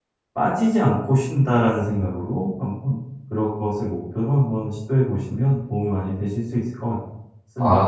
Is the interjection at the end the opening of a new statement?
Yes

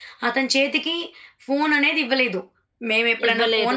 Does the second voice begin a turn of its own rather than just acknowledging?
No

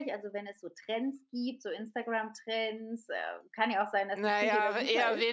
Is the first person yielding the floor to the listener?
Yes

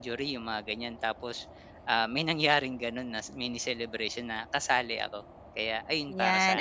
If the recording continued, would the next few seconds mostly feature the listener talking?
Yes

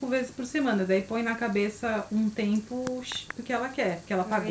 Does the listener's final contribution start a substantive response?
Yes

